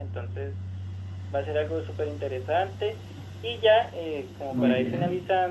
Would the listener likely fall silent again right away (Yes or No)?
Yes